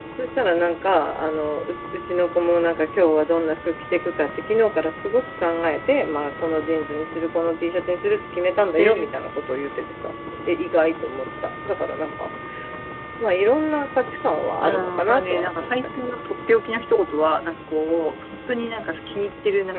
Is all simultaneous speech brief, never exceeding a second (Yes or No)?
No